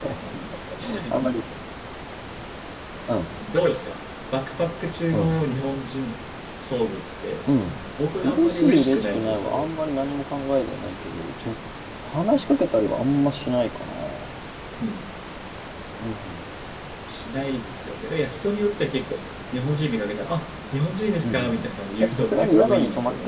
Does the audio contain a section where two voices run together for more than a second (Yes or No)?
Yes